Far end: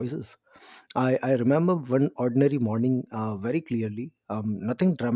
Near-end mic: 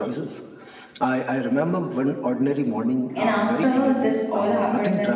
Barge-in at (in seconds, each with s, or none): 3.1 s